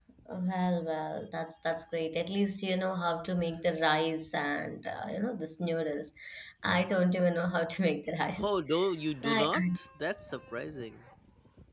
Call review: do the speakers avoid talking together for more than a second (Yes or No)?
Yes